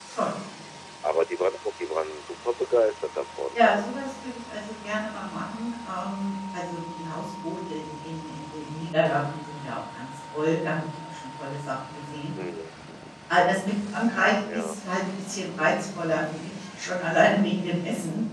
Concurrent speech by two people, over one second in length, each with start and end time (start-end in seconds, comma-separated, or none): none